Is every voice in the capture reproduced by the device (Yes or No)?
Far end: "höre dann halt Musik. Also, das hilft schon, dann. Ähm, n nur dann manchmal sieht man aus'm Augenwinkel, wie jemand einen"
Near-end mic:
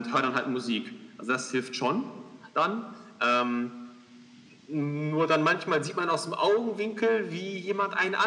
Yes